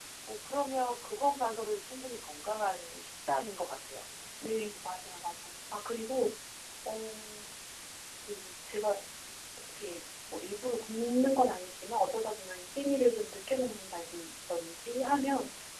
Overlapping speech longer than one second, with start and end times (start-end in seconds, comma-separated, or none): none